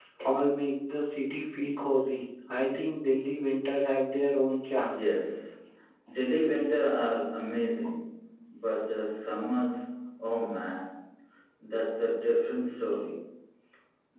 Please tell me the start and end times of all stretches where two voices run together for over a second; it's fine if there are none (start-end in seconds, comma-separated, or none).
none